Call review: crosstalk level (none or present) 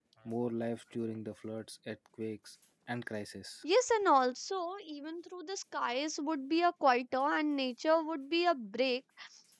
none